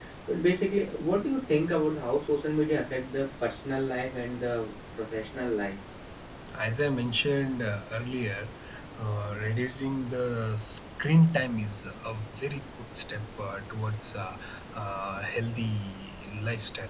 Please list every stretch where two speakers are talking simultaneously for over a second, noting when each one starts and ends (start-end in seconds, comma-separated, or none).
none